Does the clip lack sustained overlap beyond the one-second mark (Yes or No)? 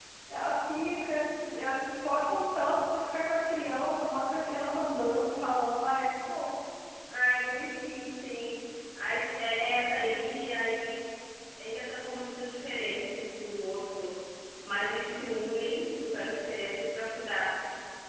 Yes